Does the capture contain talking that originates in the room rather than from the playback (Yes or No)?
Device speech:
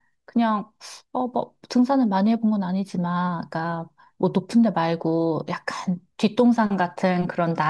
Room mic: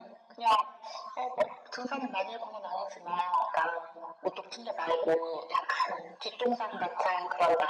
No